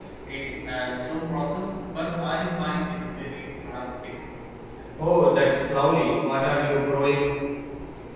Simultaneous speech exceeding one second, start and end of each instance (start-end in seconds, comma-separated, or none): none